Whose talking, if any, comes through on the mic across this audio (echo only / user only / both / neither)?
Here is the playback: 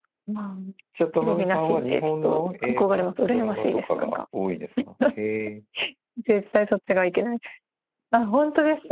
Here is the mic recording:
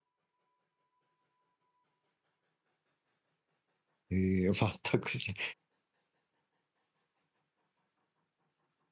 user only